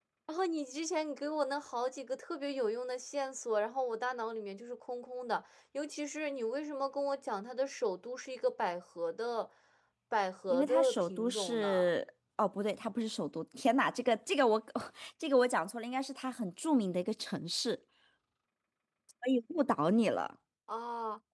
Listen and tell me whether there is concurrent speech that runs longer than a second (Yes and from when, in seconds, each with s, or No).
Yes, from 10.5 s